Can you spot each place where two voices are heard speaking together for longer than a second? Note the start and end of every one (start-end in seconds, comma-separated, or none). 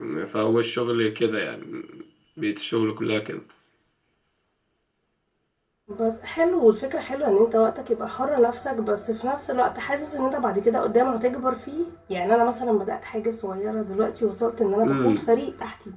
none